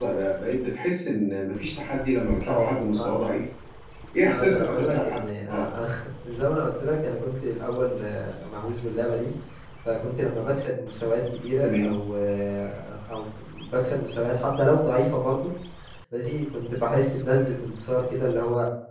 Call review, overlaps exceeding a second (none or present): present